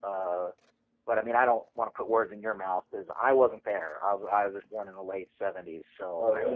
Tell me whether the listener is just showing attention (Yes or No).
No